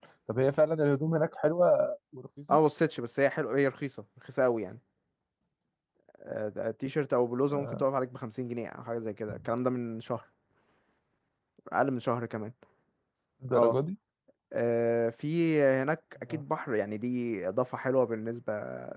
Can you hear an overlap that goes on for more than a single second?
No

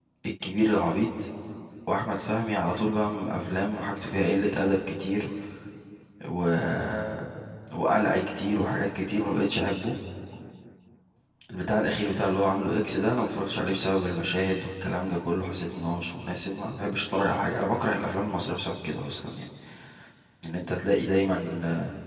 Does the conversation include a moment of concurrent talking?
No

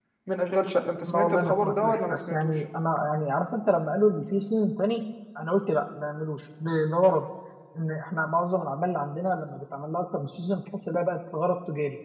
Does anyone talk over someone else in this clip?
Yes, from 1.0 s

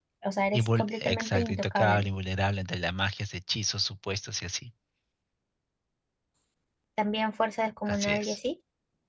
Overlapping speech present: Yes, from 0.5 s

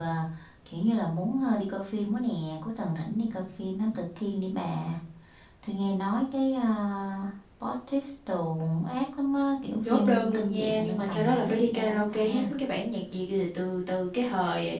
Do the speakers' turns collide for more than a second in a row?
Yes, from 9.8 s

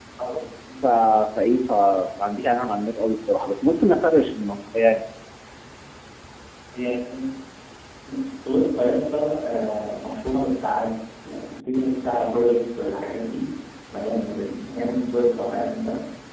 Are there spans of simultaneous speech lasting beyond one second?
No

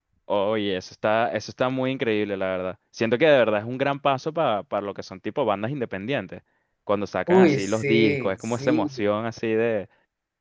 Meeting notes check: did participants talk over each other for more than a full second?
Yes, from 7.3 s

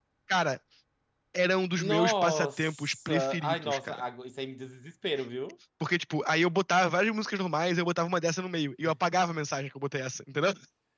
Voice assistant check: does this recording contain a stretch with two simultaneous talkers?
Yes, from 1.8 s

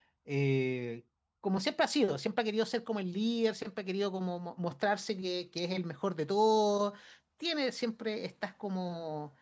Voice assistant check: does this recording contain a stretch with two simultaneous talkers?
No

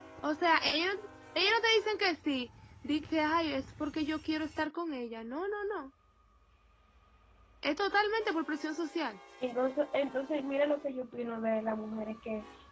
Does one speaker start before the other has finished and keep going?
No

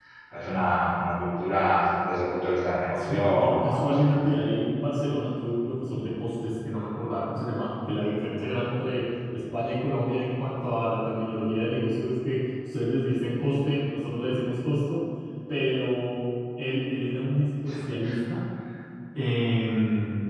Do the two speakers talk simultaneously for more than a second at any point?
Yes, from 2.9 s

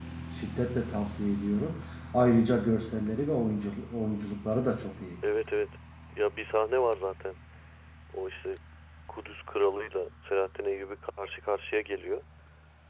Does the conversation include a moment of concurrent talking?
No

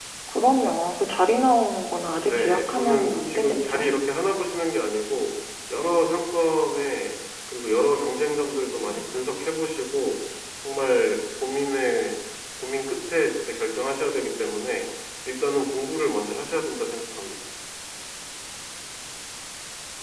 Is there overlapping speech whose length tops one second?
Yes, from 2.3 s

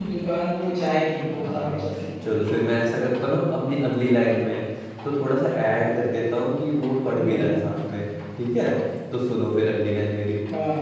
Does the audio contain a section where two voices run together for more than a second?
No

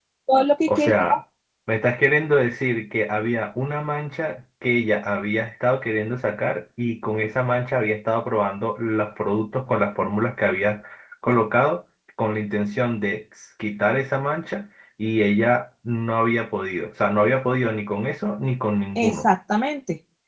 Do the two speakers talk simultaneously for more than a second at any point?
No

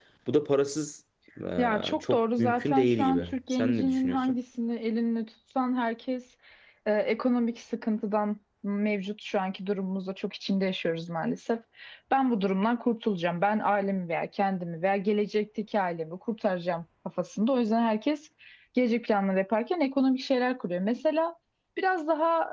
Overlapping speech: Yes, from 1.6 s

